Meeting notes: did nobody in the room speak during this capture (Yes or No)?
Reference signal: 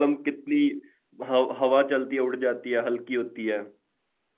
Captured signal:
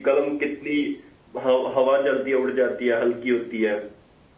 Yes